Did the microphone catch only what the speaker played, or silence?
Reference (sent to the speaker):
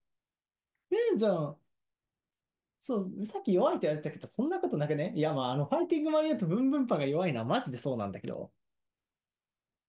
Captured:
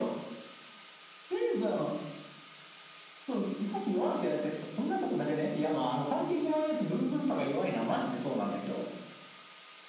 Yes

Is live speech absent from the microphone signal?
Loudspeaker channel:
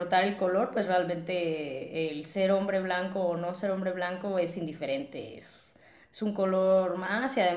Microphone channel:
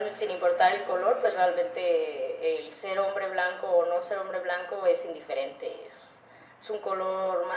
Yes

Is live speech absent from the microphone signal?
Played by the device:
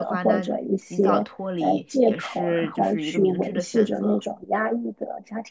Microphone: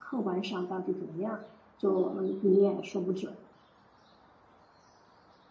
No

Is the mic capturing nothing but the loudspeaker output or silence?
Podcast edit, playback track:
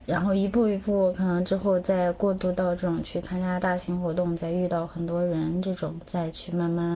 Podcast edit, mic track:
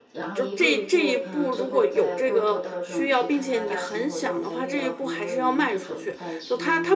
No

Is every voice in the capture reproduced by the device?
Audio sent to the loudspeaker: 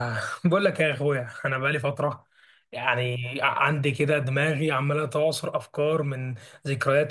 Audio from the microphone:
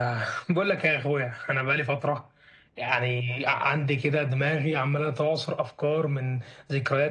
Yes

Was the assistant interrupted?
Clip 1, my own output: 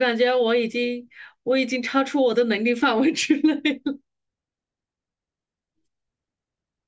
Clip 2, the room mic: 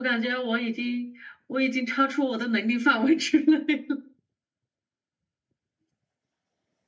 No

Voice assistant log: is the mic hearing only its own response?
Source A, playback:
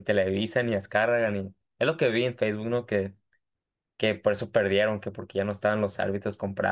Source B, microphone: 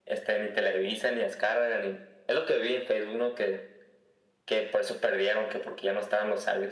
Yes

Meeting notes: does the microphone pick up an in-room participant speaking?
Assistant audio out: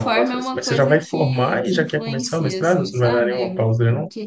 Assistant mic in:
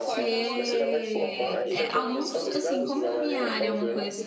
Yes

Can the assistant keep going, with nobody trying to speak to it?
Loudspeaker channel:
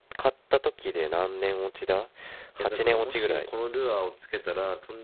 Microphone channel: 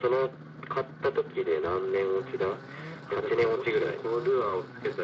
Yes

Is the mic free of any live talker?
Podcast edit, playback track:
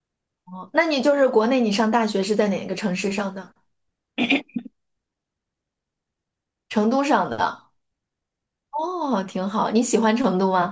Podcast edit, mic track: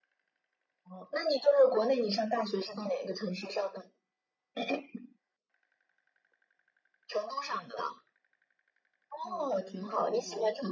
No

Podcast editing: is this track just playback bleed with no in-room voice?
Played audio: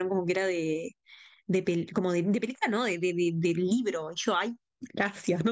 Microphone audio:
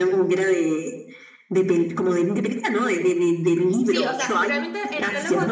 No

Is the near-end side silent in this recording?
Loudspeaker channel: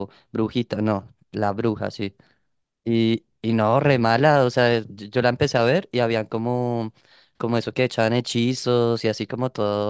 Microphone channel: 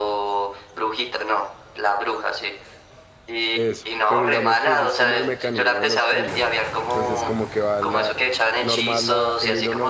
No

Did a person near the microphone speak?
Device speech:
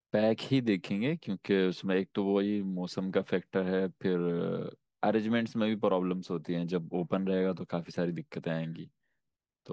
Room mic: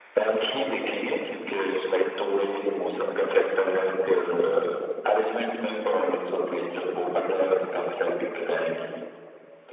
No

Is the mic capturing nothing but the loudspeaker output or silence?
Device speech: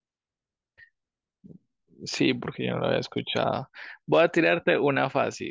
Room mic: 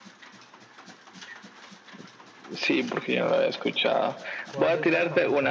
No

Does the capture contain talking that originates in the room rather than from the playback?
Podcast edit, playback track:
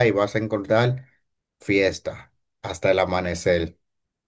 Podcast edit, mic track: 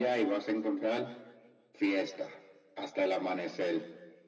No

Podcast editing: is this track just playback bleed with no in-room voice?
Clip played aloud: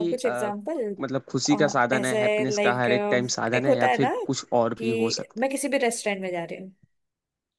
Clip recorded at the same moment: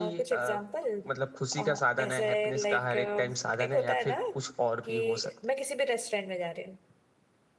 Yes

